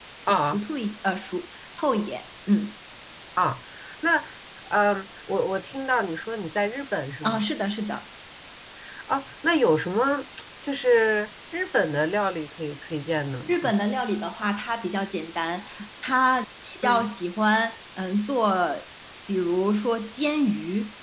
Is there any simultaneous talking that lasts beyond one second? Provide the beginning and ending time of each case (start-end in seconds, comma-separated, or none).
none